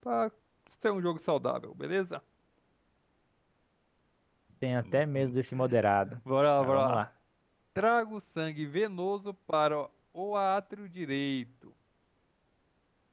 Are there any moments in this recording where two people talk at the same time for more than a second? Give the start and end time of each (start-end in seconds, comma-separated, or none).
none